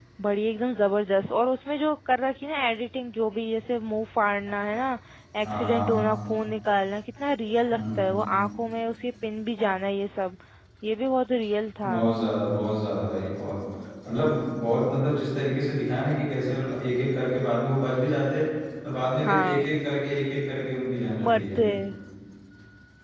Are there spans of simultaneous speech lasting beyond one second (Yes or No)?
No